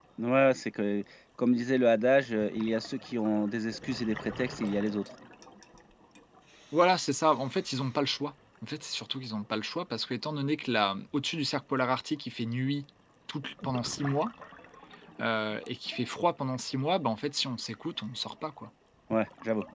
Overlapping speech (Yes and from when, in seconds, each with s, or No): No